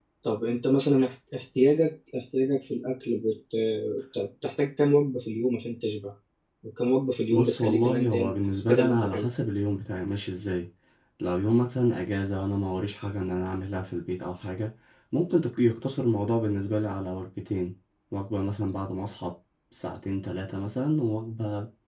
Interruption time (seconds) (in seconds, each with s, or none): 7.3 s